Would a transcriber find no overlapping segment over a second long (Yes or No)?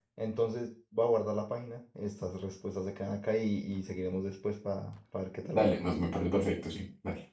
Yes